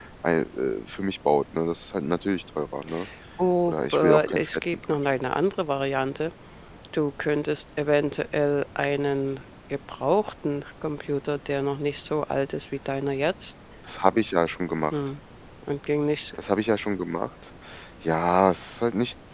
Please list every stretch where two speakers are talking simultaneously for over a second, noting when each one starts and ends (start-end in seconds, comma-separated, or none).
3.7-5.0